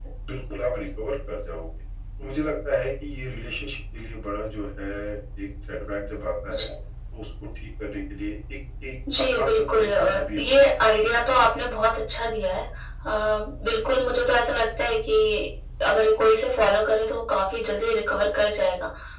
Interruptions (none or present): present